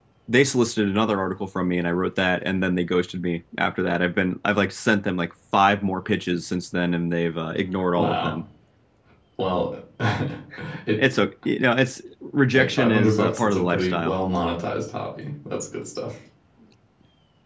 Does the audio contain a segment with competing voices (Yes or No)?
Yes